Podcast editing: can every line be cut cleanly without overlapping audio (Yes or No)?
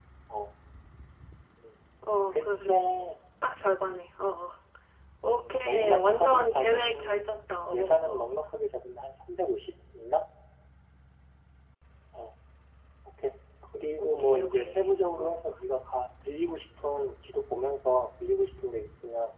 No